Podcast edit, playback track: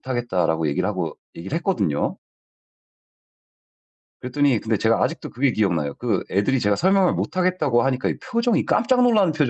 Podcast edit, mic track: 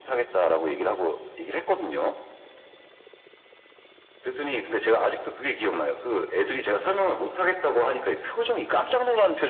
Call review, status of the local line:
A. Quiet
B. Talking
A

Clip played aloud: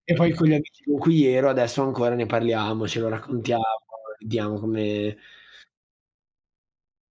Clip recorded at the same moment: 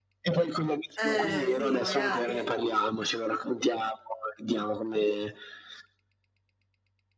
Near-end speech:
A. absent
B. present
B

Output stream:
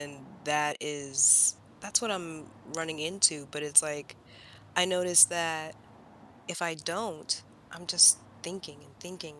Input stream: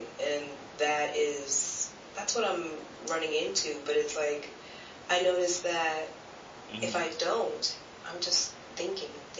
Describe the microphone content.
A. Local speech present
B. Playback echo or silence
A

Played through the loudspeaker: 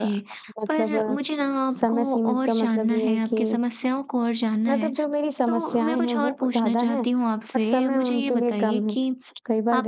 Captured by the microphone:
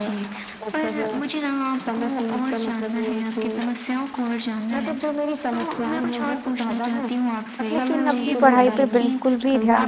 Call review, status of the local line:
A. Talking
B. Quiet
A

